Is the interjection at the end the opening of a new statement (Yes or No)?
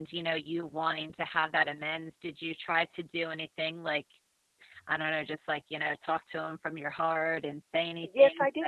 Yes